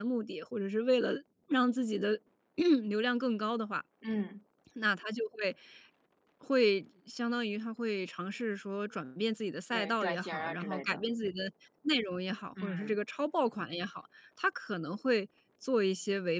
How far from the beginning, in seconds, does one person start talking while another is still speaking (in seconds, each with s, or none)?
9.7 s